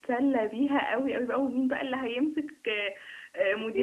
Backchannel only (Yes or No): Yes